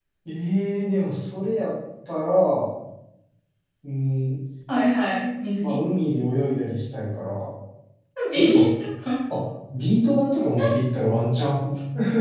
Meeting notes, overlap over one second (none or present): none